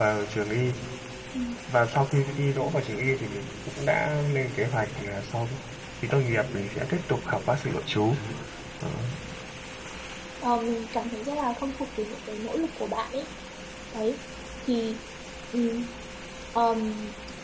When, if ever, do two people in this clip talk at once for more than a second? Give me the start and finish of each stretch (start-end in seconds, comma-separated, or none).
none